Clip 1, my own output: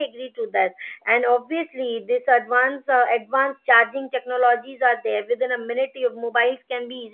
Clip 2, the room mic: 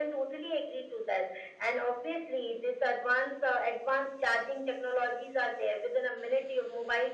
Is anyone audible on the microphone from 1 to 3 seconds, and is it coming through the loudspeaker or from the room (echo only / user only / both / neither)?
echo only